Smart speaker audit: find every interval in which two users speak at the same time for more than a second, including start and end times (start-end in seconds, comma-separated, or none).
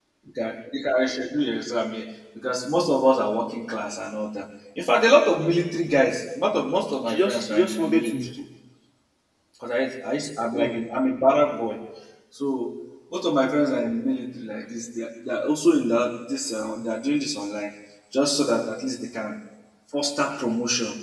7.0-8.3